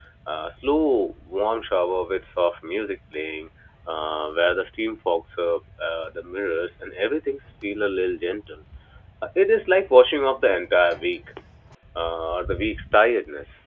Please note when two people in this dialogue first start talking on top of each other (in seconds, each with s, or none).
none